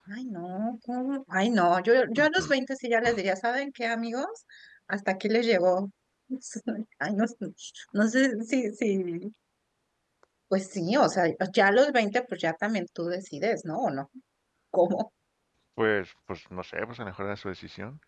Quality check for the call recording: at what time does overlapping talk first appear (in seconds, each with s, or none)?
none